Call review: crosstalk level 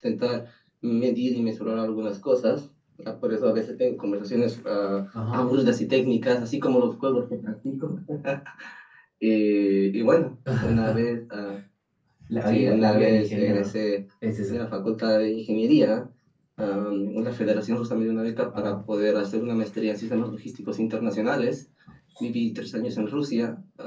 present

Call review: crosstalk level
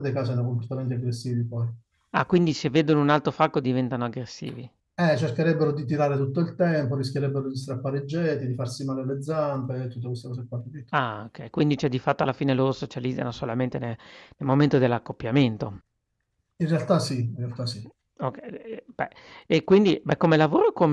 none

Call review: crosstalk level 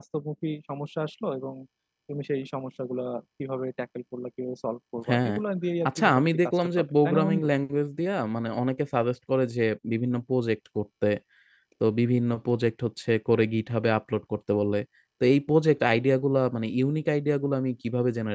present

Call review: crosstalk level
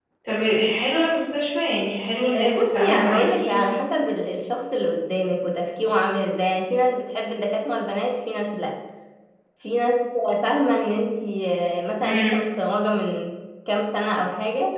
present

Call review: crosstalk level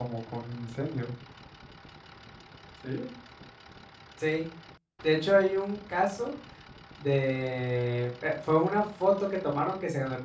none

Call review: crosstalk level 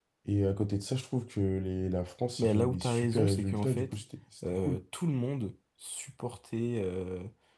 present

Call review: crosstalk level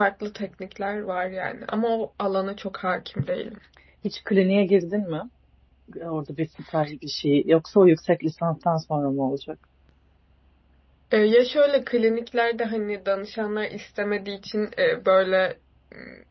none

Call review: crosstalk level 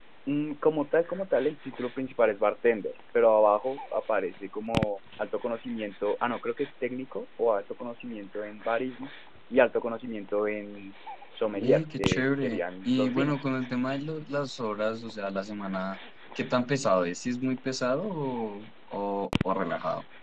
present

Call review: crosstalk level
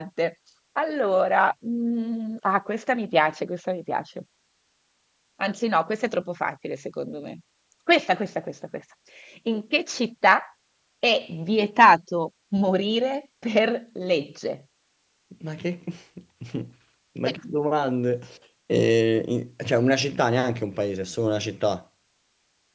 none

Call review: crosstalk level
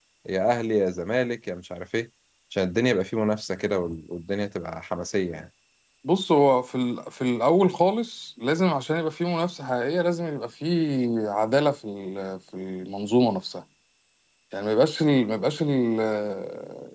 none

